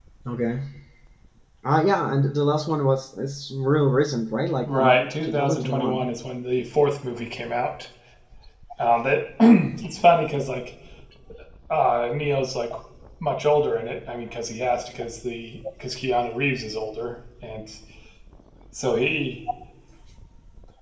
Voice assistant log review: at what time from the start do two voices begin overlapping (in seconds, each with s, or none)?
4.7 s